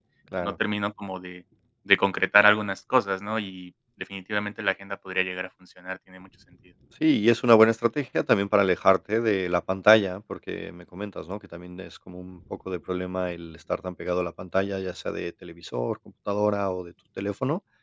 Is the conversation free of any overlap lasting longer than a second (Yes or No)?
Yes